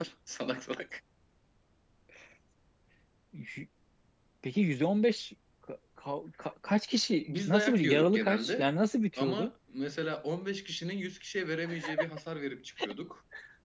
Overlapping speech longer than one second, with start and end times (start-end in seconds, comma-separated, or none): 7.3-8.7